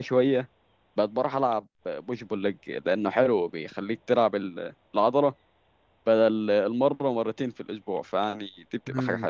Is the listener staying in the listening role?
No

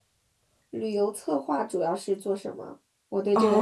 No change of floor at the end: No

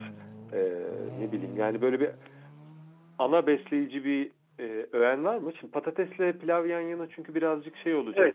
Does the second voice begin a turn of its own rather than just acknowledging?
Yes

